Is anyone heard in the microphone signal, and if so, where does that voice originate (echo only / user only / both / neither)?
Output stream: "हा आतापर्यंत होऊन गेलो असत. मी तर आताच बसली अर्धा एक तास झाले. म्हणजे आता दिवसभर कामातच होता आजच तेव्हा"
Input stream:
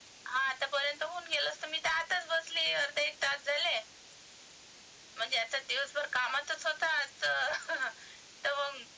echo only